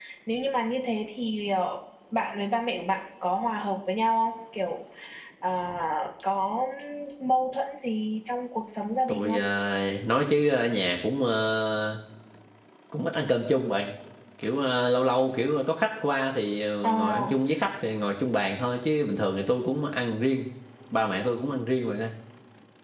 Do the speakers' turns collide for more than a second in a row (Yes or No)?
No